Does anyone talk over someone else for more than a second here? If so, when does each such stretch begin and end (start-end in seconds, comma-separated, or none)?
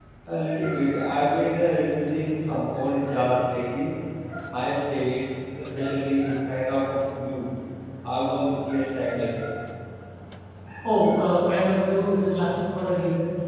none